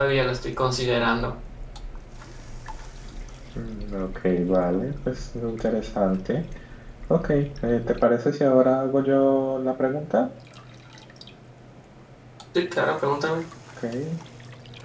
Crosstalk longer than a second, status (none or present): none